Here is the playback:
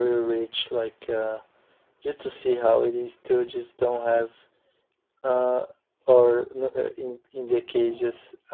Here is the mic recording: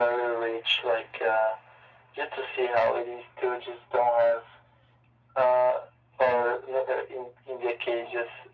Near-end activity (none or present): none